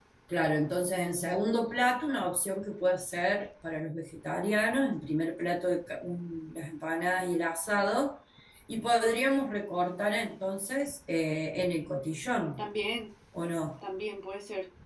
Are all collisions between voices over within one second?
Yes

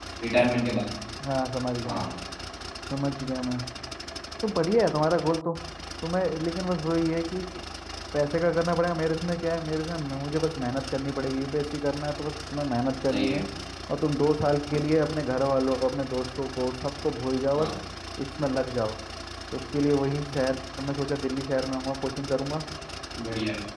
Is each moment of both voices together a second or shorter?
Yes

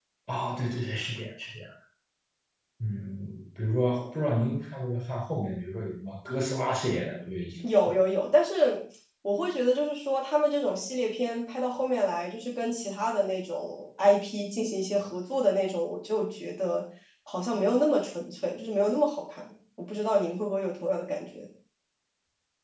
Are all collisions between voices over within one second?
Yes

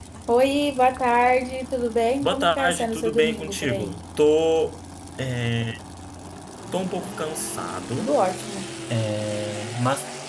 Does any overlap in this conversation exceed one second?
Yes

